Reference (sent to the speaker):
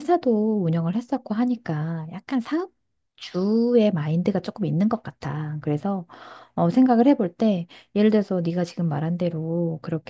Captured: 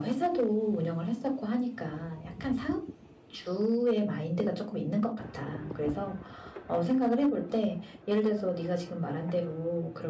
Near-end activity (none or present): none